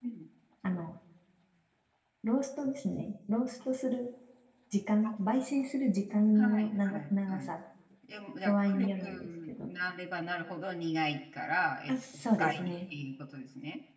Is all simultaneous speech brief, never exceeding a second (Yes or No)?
No